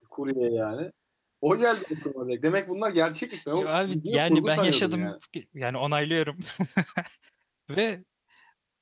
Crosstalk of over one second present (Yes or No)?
Yes